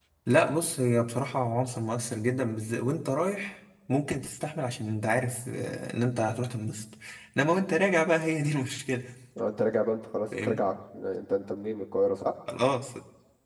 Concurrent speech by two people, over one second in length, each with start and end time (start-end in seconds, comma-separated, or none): none